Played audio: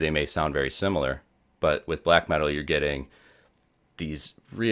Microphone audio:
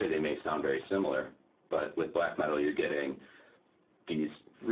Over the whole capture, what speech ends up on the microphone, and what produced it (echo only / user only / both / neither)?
echo only